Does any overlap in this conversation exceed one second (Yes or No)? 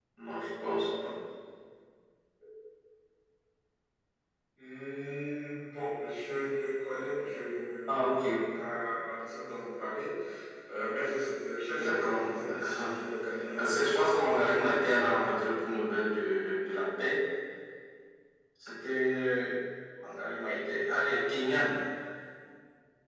Yes